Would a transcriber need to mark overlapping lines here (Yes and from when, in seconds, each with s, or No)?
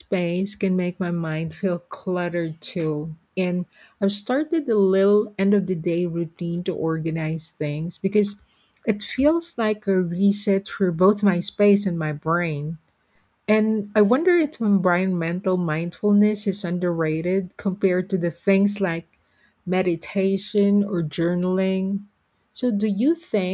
No